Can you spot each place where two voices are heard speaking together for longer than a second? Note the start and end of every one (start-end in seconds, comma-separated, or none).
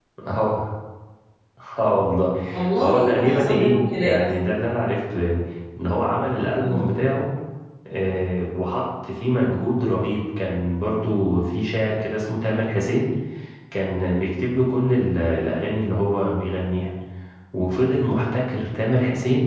2.8-4.2